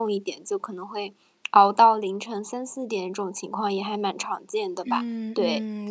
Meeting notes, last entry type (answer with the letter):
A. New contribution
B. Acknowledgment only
A